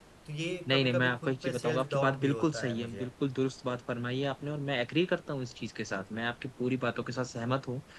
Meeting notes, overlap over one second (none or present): present